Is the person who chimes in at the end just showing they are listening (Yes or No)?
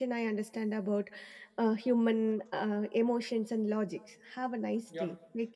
No